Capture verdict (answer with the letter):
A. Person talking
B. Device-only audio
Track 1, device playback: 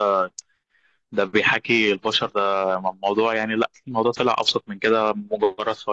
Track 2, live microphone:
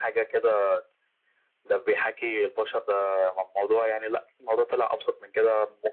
B